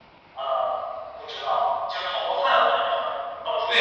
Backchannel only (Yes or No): No